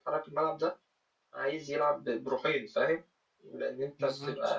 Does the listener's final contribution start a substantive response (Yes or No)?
No